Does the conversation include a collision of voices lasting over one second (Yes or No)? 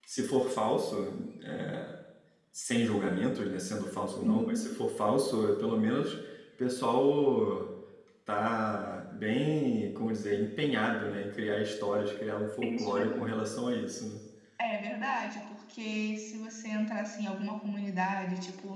No